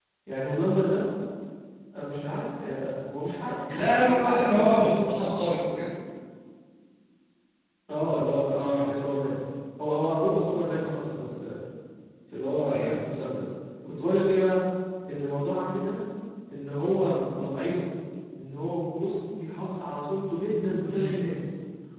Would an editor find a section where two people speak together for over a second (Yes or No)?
Yes